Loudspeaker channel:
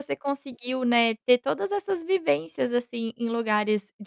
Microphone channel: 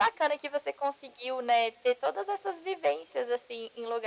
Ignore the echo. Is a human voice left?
No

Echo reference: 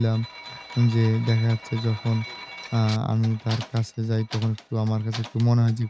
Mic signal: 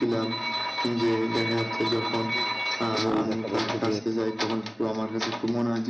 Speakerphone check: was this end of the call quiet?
No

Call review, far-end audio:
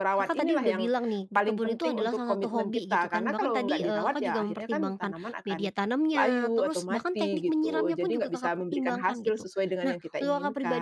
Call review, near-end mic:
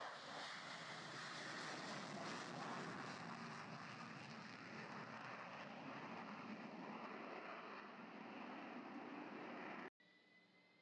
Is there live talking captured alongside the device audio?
No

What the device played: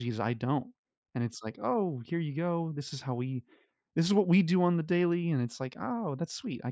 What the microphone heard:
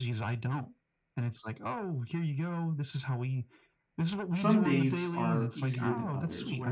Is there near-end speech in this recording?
Yes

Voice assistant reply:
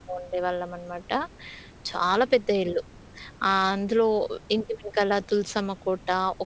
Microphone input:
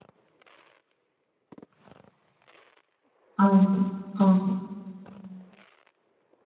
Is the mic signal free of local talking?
No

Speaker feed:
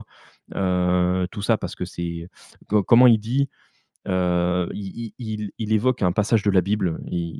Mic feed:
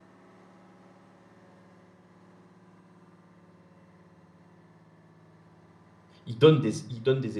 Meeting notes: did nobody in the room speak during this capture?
No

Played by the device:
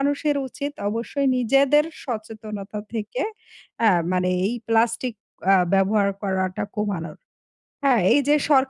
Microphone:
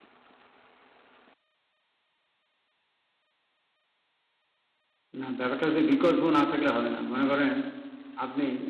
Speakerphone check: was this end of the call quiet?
No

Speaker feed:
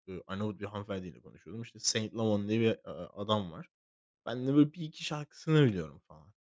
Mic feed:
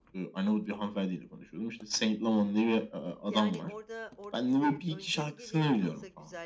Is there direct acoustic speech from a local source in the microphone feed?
Yes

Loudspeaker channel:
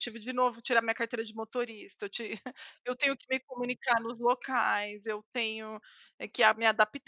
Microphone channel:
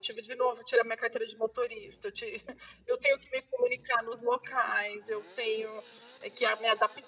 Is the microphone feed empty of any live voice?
Yes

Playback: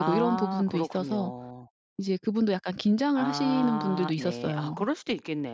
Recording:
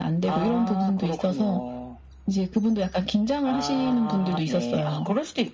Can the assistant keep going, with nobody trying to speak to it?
Yes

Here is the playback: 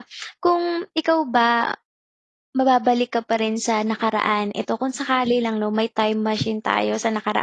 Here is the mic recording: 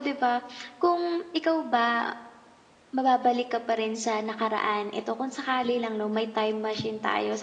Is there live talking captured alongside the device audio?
No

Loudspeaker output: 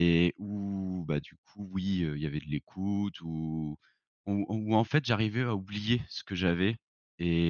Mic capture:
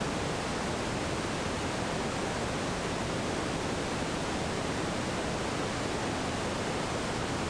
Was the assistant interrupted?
No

